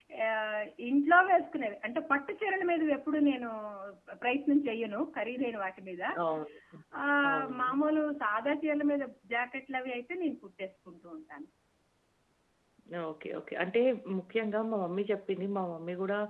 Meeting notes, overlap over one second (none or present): none